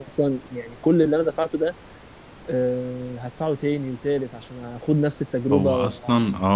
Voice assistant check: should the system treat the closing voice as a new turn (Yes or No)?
Yes